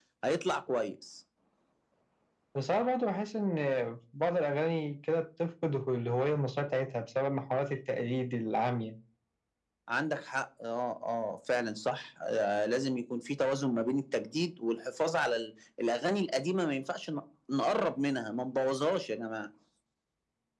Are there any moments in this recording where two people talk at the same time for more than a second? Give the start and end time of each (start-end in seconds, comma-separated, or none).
none